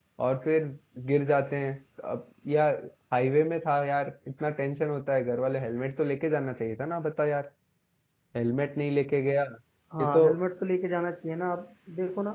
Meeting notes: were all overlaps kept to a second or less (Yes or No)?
Yes